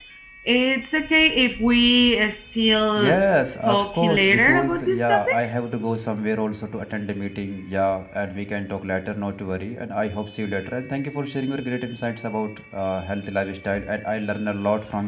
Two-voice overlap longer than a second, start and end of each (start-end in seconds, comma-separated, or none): 3.7-5.4